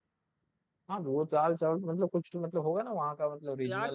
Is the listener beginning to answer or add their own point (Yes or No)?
Yes